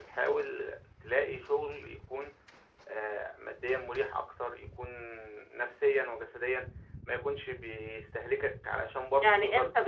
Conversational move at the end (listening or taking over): taking over